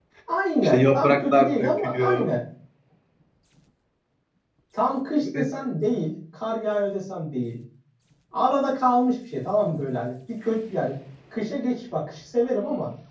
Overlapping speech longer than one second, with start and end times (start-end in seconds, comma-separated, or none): 0.6-2.3